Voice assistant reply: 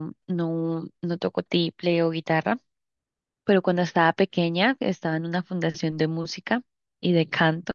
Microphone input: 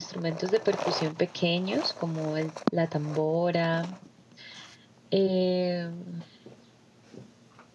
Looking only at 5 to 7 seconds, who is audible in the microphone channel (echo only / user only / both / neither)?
user only